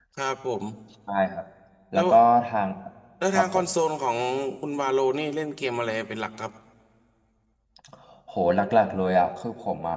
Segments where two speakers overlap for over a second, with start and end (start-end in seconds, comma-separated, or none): none